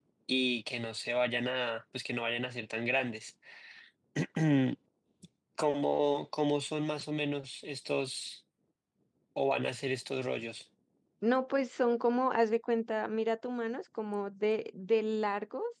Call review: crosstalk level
none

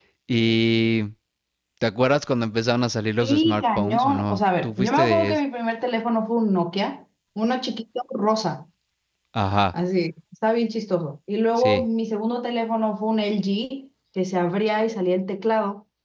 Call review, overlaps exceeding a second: present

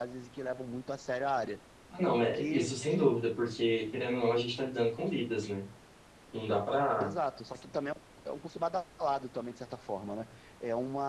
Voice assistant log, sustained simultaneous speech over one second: none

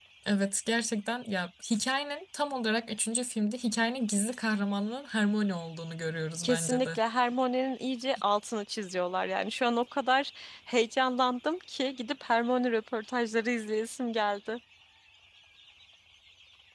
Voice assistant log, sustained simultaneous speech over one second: none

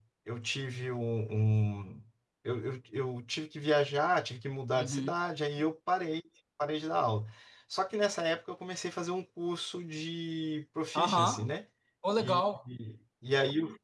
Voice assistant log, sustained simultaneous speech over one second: none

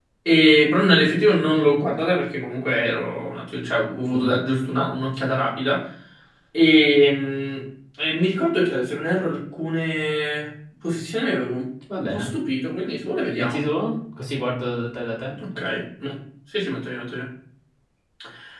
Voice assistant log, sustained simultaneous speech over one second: none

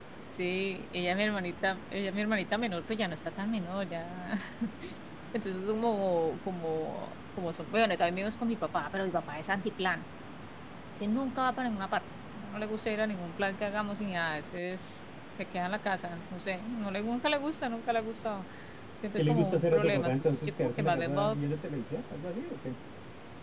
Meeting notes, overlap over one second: present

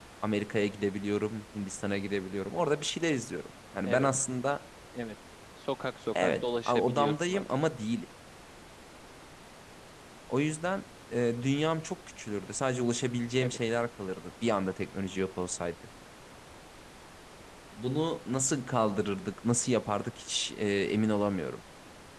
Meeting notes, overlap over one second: present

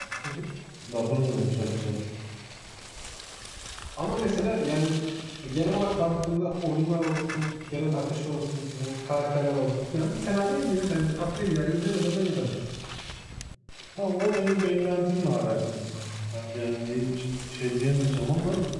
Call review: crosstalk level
none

